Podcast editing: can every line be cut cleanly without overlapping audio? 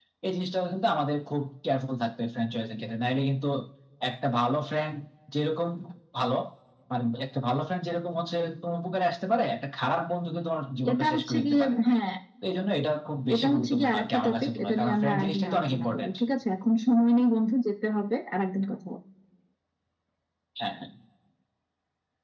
No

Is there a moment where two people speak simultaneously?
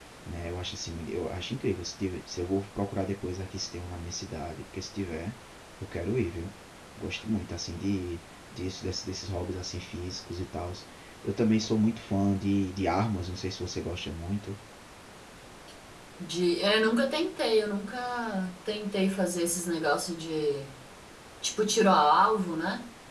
No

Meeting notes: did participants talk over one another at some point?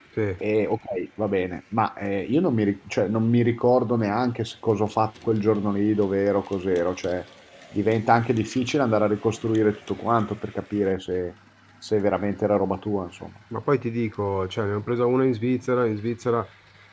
No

